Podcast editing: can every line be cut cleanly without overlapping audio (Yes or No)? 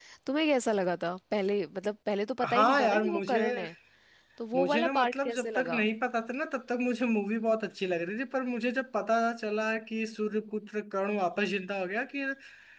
No